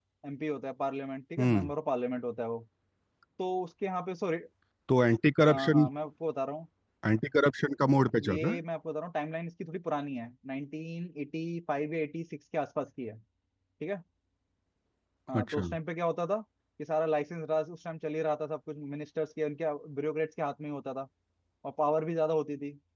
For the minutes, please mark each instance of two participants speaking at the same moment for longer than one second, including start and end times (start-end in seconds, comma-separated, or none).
none